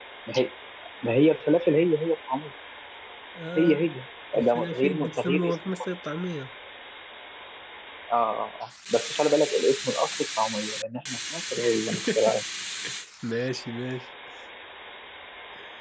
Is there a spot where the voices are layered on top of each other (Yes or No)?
Yes